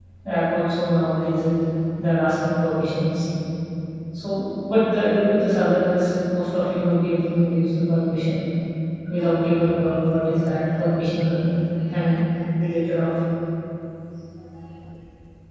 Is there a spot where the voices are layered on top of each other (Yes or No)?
No